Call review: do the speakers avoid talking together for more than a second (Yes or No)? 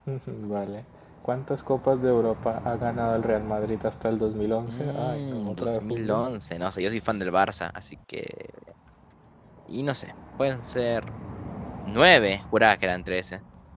No